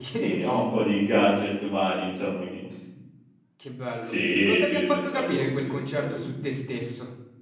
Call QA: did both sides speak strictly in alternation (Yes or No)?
No